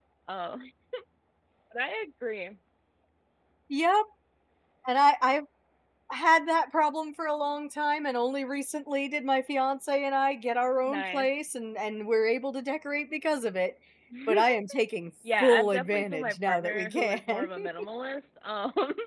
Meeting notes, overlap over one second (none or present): present